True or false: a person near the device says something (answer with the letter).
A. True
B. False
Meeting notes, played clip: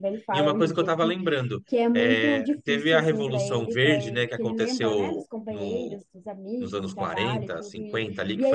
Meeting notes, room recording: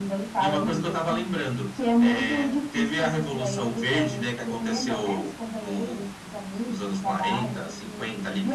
B